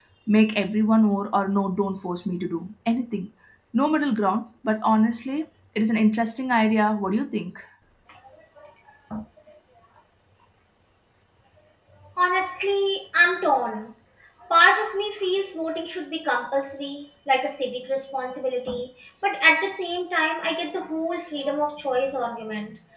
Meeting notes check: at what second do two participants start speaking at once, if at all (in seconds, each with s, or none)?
none